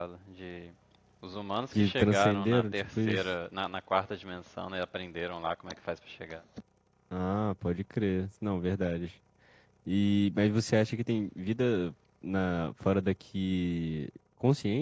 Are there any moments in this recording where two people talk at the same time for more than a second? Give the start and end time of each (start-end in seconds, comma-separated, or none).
1.7-3.2